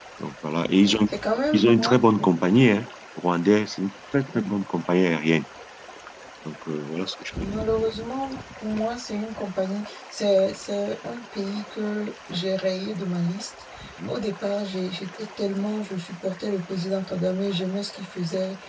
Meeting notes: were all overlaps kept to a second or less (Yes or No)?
Yes